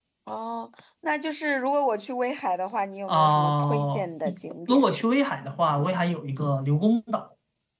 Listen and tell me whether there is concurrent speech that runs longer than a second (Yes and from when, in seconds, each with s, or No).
Yes, from 3.1 s